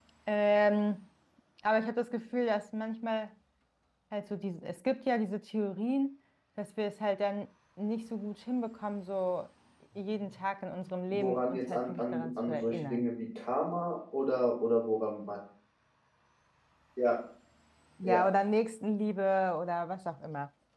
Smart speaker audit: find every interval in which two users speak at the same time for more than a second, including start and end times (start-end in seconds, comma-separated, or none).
11.1-13.0